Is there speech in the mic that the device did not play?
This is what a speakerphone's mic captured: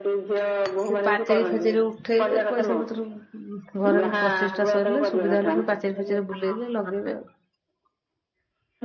Yes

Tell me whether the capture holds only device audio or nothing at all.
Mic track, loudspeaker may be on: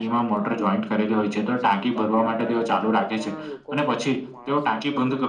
No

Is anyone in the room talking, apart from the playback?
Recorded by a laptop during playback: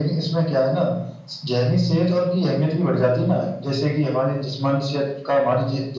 No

